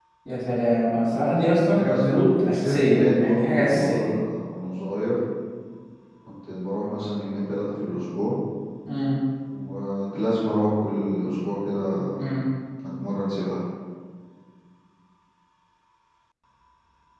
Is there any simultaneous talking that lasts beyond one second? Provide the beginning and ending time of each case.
1.6-4.1

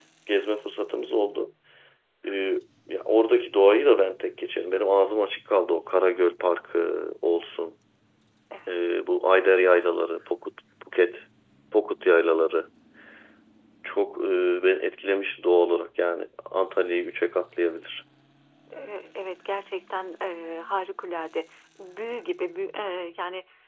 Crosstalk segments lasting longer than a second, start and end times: none

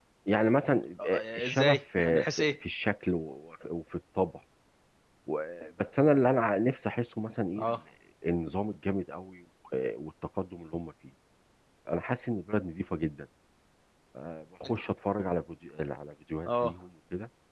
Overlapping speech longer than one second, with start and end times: 1.0-2.5

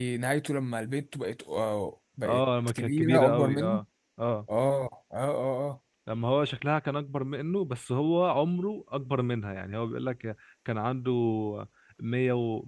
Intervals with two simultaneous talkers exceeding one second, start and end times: 2.2-3.8

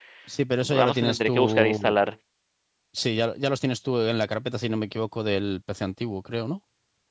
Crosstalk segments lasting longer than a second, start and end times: 0.6-2.0

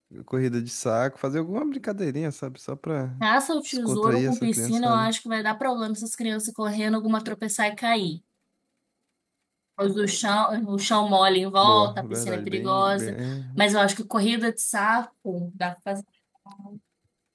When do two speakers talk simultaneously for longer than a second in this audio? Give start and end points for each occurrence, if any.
3.7-5.1, 11.6-13.1

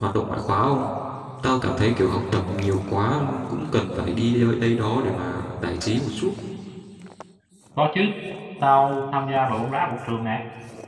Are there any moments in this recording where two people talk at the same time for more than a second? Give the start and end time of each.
none

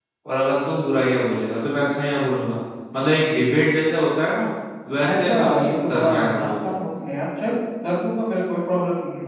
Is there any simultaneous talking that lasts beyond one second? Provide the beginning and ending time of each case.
5.1-6.8

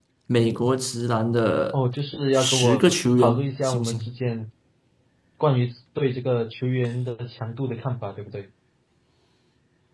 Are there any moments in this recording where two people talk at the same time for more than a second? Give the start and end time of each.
2.3-4.1

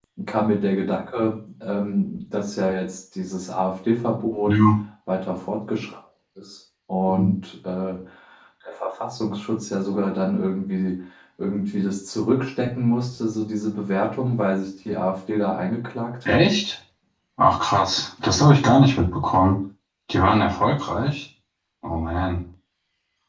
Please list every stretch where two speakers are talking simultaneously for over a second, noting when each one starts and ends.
none

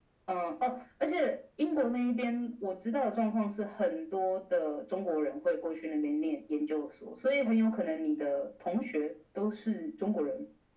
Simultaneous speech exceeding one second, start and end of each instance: none

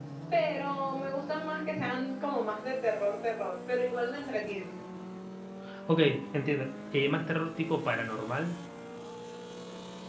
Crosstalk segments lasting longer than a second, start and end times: none

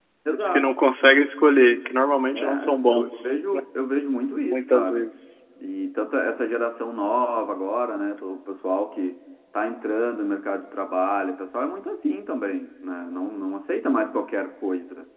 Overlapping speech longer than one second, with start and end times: 2.3-3.6

